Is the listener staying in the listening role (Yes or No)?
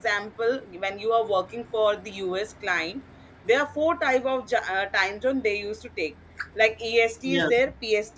Yes